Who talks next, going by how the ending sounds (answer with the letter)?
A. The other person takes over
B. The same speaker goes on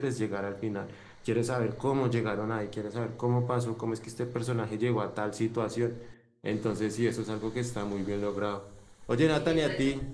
B